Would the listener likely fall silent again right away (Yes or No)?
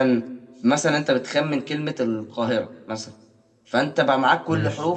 Yes